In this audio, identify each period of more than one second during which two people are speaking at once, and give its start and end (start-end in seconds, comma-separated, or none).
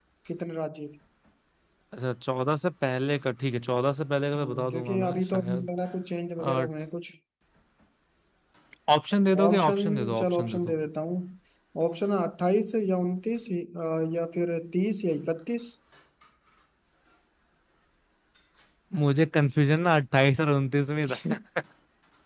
4.4-5.7, 9.4-10.7